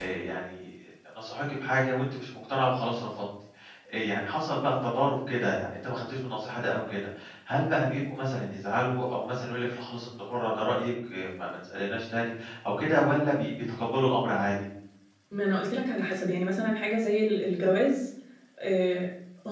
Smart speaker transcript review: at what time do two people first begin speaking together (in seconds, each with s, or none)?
none